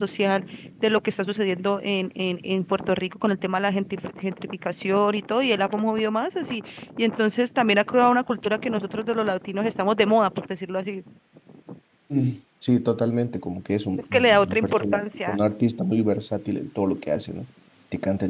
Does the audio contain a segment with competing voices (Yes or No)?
Yes